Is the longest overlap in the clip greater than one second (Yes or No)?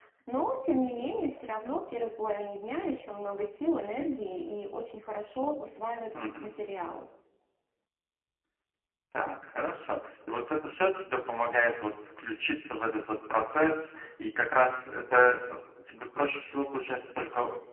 No